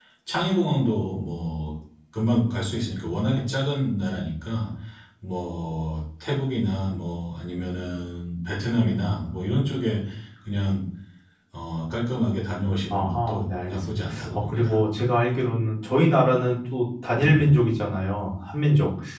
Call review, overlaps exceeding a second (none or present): present